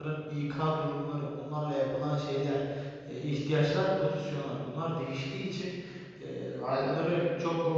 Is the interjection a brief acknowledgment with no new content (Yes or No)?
Yes